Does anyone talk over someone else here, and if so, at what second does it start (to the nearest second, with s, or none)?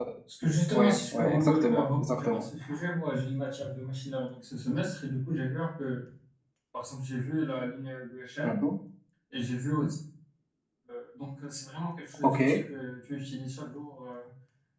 1 s